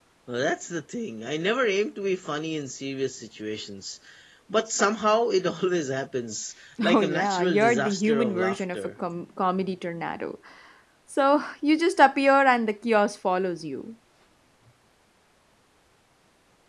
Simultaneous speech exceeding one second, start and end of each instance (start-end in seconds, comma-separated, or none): 6.8-8.8